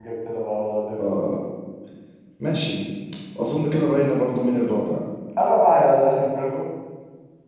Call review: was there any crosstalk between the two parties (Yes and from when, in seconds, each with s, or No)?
No